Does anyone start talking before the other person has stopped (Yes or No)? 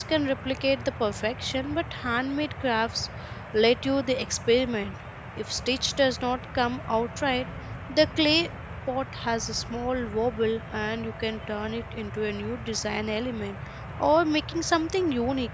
No